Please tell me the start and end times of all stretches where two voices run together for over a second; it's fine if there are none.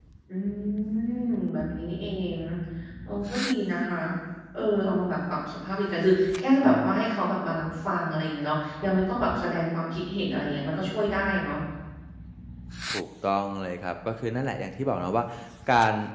none

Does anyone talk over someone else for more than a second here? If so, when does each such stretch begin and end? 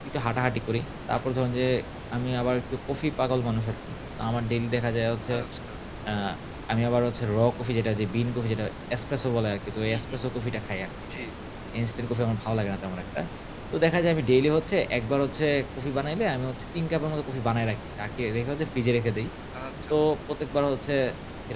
none

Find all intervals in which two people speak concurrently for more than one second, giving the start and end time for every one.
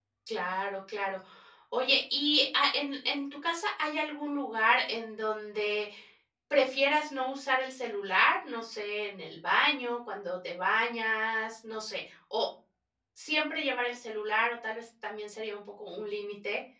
none

